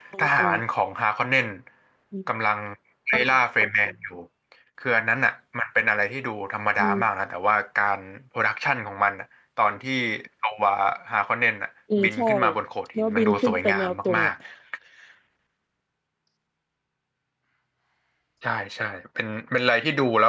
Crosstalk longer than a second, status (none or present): present